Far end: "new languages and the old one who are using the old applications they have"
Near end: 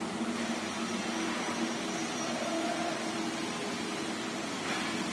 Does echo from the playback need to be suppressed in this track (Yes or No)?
No